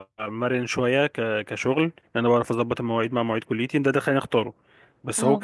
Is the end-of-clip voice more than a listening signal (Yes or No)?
No